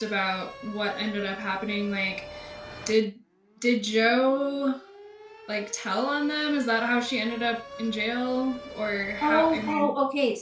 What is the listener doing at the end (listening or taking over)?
taking over